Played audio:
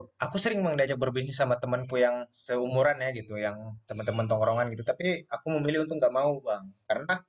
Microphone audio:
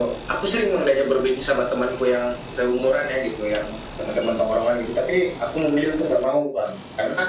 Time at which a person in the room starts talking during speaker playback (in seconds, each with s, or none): none